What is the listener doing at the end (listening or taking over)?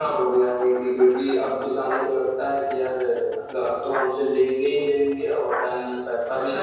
taking over